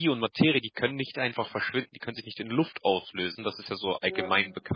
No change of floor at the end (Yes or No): Yes